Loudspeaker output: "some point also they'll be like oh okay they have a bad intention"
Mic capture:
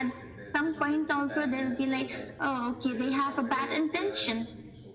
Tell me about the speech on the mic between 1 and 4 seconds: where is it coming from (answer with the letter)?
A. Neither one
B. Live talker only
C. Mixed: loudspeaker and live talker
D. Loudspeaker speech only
C